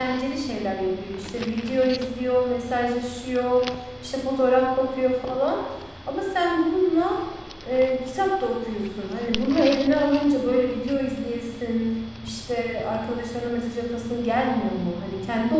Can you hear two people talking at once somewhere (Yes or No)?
No